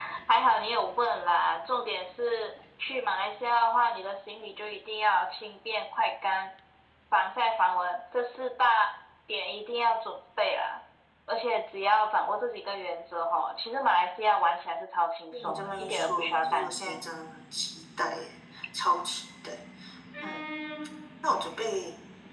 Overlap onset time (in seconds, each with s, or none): 15.3 s